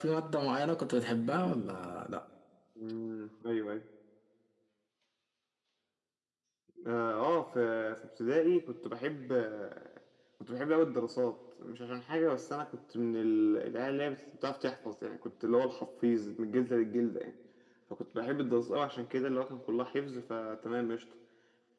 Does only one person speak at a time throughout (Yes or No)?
Yes